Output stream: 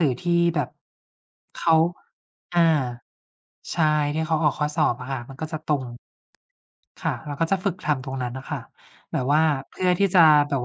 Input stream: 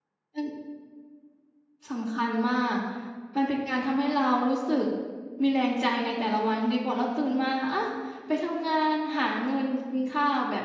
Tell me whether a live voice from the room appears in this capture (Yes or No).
Yes